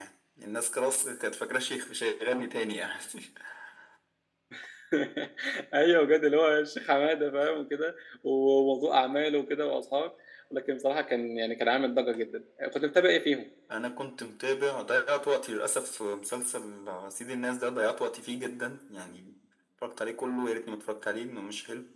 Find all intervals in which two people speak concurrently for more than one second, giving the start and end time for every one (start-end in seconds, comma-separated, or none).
none